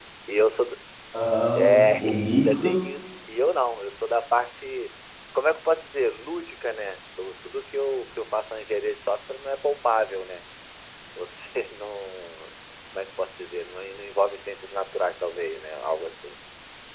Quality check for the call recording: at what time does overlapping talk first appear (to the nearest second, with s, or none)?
2 s